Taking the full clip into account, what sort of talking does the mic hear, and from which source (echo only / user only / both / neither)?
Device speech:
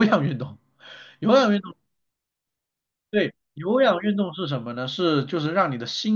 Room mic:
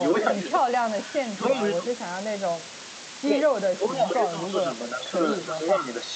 both